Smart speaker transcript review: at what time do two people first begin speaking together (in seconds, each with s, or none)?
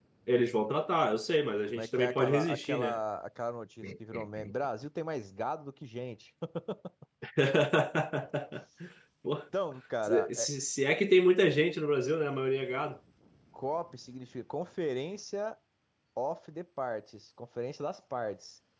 1.7 s